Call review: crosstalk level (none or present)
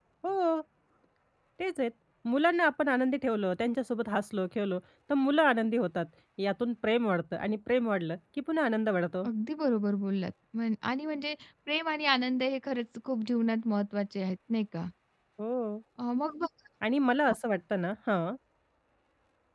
none